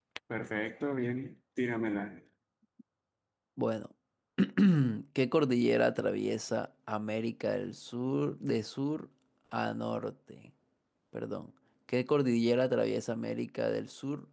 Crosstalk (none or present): none